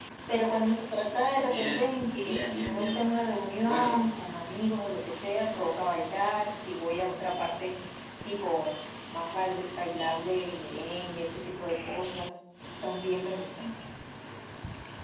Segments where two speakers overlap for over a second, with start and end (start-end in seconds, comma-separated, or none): 1.4-3.0